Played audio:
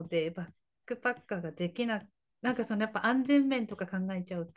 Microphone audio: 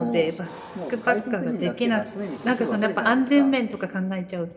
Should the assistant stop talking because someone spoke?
Yes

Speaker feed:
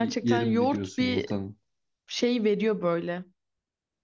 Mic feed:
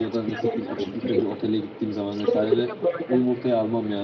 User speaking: Yes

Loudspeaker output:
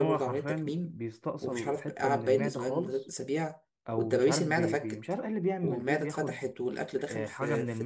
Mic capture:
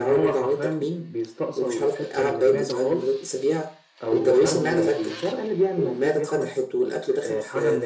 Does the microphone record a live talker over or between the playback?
Yes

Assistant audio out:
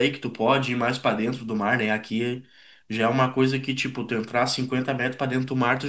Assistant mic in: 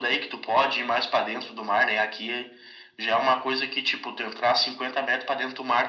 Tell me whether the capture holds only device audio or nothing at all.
Yes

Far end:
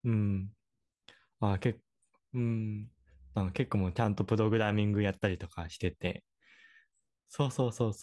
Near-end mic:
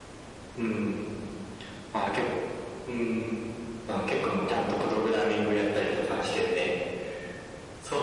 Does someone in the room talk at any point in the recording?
No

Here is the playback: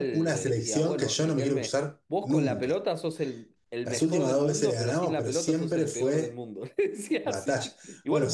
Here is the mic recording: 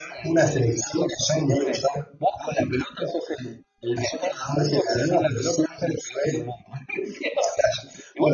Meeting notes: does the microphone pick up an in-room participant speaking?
No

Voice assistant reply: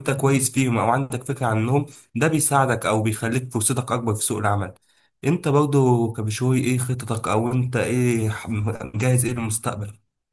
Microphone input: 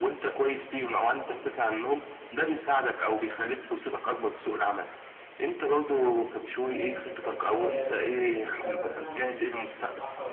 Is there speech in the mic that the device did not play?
Yes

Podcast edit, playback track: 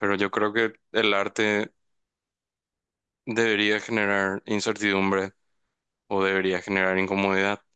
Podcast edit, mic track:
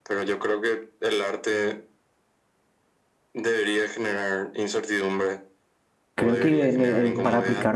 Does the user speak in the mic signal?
Yes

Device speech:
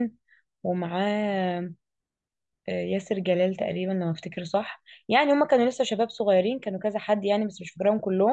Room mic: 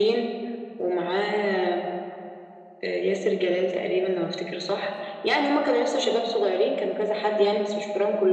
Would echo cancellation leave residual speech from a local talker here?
No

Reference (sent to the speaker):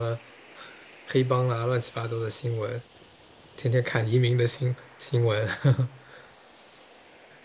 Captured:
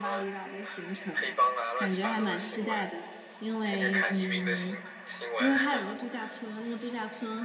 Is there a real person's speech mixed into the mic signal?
Yes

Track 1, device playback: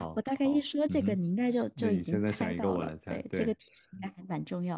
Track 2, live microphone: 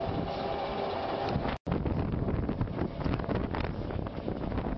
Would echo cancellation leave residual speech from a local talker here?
No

